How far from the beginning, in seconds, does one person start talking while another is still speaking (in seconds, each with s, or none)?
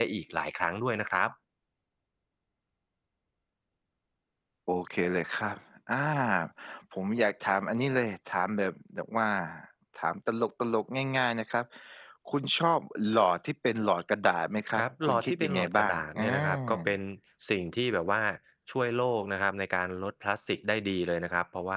14.7 s